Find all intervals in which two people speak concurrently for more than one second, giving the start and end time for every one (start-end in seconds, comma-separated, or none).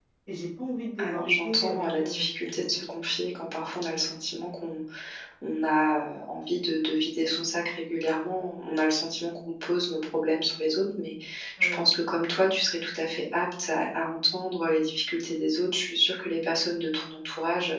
1.0-2.7